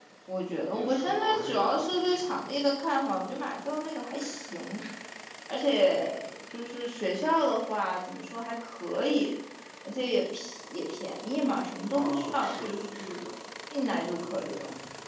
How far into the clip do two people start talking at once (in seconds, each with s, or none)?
0.7 s